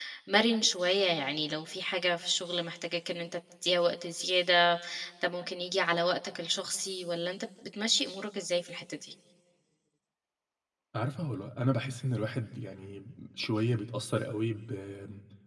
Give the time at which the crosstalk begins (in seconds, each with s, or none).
none